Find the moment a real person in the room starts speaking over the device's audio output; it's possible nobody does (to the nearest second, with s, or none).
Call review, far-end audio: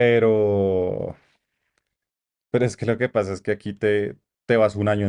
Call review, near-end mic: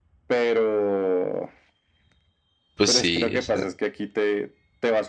3 s